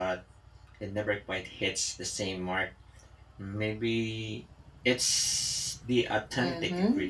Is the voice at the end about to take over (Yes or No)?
Yes